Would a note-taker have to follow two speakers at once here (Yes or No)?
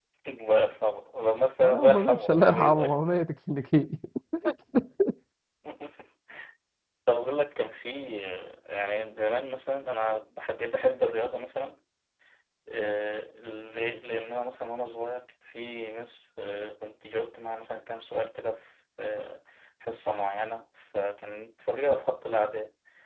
Yes